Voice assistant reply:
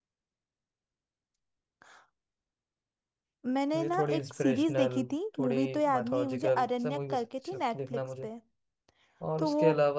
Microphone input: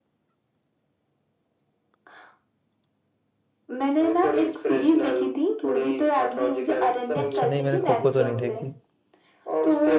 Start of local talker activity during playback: 7.2 s

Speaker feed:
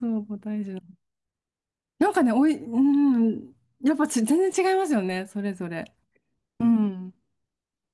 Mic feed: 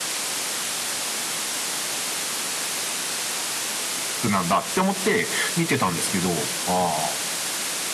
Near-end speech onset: 4.2 s

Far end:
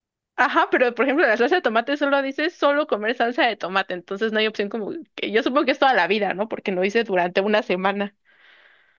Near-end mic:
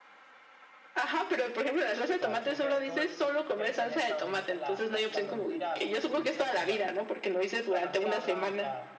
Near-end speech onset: 2.2 s

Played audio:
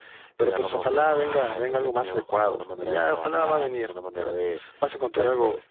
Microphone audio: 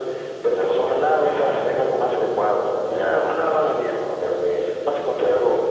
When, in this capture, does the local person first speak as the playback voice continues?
none

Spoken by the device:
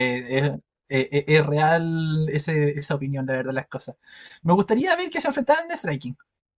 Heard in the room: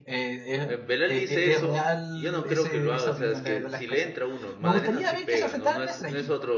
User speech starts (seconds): 0.7 s

